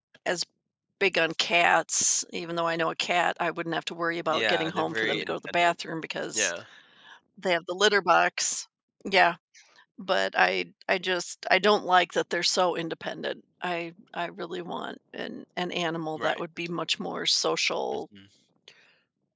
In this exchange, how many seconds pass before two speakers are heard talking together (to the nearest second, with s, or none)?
4 s